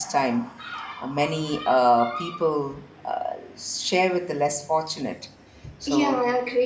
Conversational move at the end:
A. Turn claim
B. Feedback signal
A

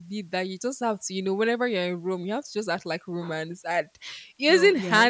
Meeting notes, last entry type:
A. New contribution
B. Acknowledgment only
B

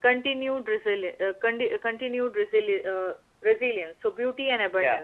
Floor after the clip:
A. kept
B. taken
B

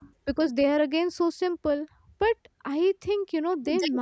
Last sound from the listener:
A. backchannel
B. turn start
A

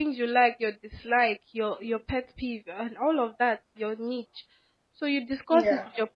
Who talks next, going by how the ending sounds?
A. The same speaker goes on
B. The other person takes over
A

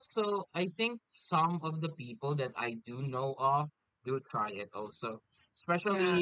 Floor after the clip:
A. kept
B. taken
A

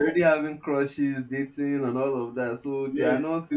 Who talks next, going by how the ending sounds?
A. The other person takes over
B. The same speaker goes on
A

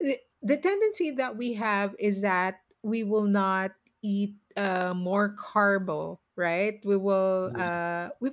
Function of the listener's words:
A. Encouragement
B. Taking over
A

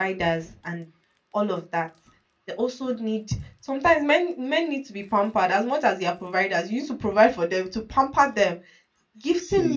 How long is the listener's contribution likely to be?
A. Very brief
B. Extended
A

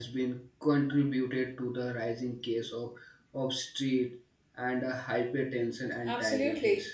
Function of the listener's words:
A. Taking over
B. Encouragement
A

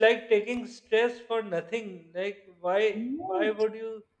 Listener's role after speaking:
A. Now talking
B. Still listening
B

